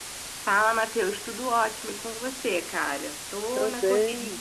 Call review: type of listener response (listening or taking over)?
taking over